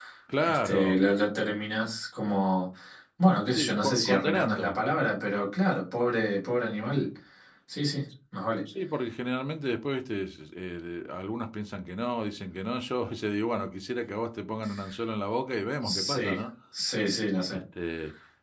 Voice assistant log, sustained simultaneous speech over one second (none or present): present